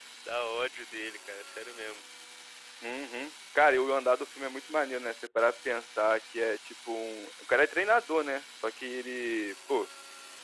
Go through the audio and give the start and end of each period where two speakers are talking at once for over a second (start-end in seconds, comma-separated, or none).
none